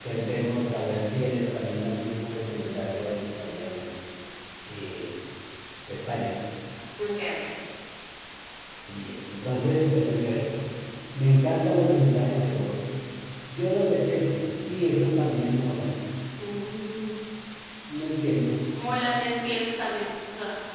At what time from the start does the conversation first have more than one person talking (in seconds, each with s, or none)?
none